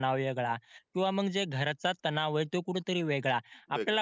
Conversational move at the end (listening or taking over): listening